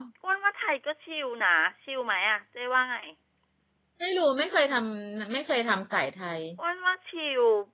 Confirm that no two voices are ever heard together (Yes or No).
Yes